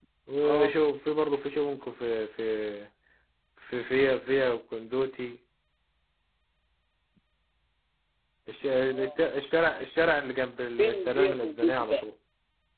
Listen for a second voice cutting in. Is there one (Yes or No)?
Yes